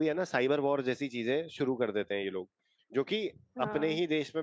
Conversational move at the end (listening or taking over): listening